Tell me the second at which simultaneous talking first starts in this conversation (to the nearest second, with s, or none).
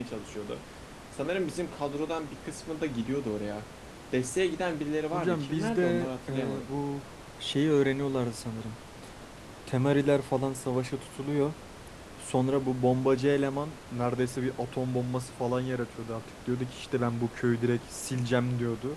5 s